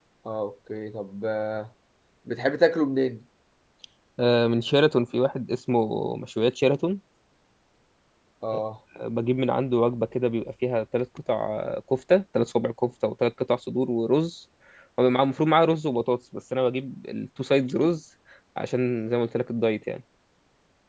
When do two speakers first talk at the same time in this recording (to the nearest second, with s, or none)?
none